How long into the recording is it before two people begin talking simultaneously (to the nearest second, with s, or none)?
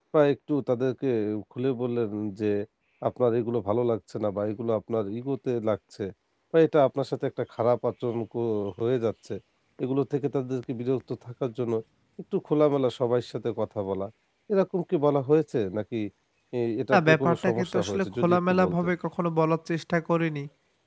17 s